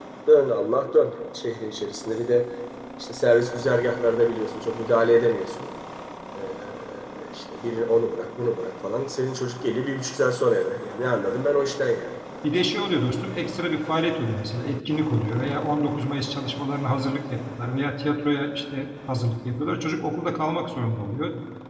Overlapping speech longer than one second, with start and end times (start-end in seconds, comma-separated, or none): none